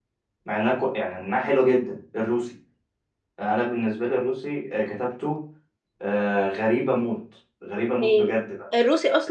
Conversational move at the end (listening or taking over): taking over